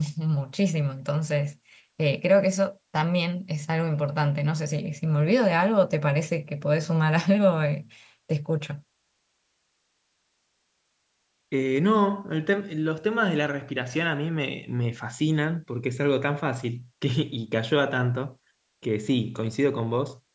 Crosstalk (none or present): none